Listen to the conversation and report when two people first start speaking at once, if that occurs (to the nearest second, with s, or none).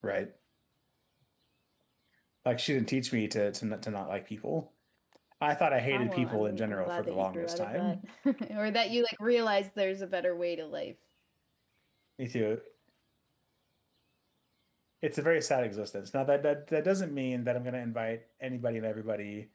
6 s